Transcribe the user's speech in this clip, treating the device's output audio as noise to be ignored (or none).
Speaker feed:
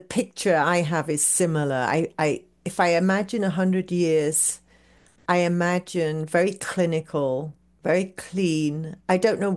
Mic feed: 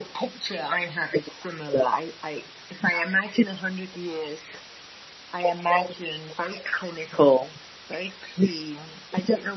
none